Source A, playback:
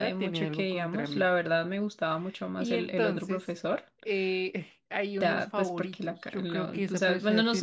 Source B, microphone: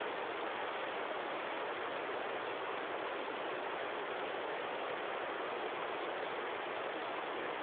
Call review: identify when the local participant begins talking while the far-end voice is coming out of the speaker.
none

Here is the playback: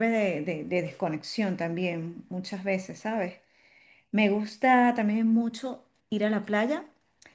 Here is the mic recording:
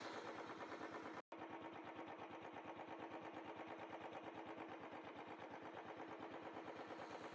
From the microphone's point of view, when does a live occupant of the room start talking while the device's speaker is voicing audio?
none

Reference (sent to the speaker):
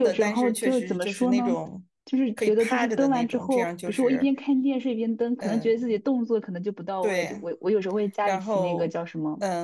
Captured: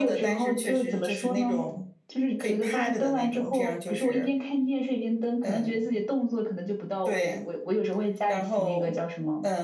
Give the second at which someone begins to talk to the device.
none

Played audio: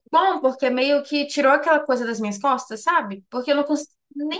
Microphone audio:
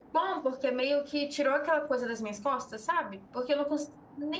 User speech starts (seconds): none

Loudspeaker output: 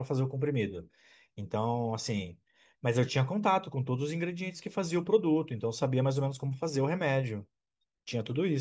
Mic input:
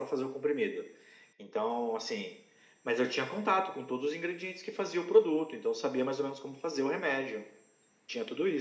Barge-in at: none

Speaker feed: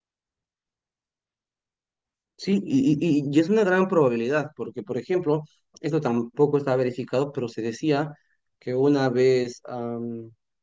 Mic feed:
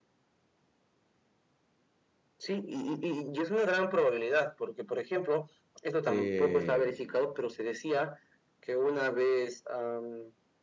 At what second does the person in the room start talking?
6.0 s

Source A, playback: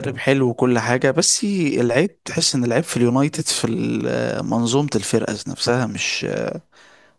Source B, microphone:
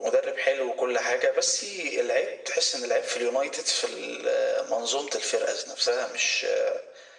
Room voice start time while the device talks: none

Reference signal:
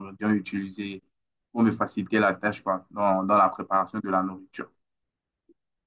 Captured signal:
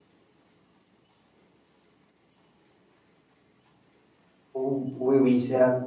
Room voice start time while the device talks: 4.5 s

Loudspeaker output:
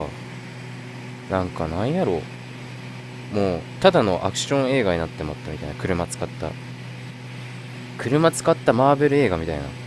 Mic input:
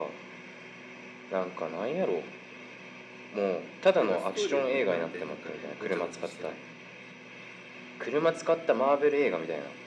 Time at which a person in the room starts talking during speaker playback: 4.0 s

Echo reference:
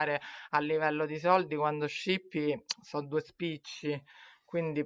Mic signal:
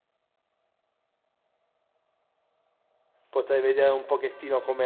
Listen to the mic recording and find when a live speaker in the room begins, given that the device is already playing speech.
3.3 s

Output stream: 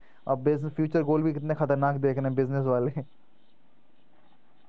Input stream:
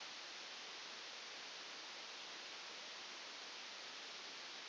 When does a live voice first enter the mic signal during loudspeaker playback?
none

